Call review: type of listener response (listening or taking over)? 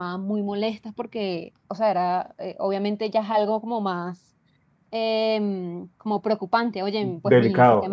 taking over